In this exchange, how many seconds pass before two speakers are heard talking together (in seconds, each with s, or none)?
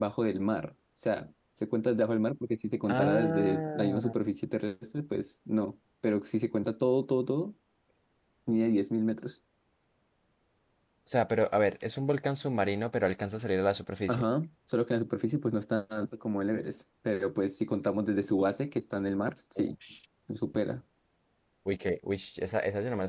2.9 s